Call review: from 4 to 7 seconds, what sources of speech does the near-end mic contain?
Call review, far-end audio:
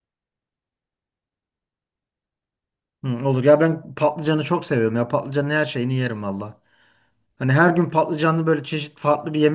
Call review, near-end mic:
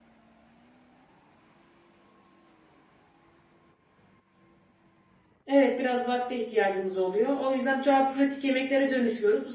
user only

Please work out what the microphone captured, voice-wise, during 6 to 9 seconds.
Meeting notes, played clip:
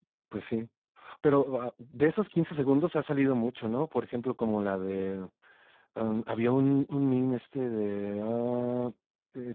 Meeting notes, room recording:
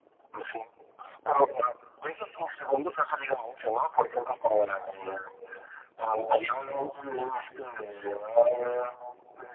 echo only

